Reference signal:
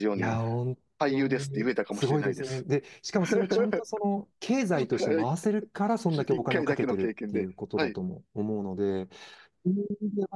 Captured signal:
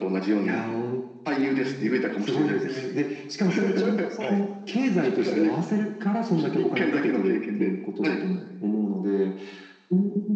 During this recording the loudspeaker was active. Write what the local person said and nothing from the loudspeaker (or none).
はい。